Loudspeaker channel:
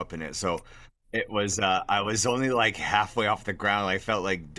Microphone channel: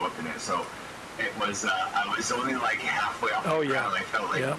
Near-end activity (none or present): present